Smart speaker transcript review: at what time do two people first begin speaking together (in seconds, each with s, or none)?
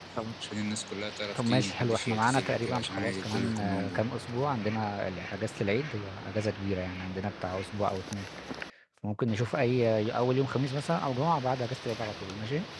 1.4 s